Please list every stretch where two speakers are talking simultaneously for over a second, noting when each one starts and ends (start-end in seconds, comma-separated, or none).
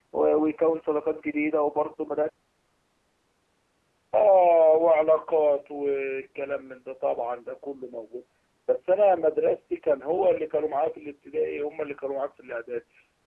none